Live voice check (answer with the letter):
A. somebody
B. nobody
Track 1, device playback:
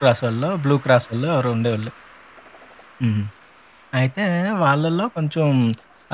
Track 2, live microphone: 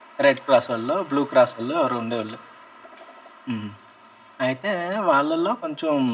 B